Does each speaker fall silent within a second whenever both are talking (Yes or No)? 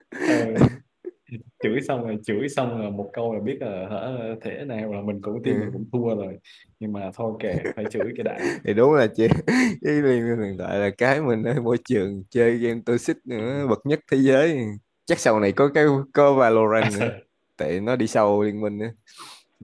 Yes